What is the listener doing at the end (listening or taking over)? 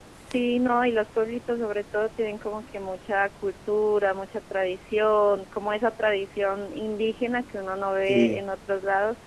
listening